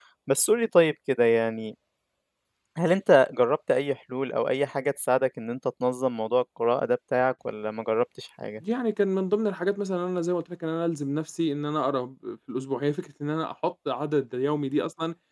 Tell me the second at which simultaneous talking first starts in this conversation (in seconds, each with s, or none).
none